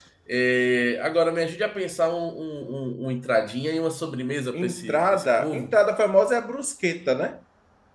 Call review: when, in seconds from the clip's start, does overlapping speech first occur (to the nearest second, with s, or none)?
5 s